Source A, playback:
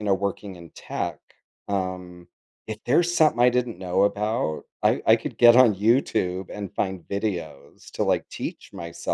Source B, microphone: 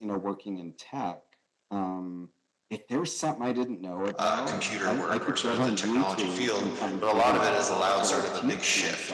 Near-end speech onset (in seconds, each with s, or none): 4.2 s